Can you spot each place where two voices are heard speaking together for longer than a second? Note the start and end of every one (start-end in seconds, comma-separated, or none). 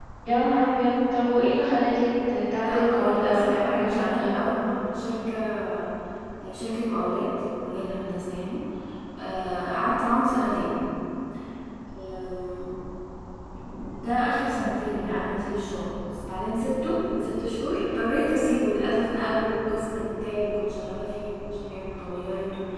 2.5-4.5